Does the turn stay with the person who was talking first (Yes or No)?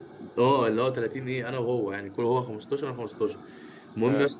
Yes